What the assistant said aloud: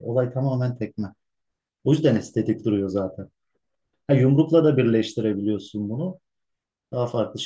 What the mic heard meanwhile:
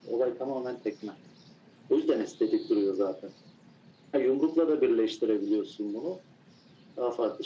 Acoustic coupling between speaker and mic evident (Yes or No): Yes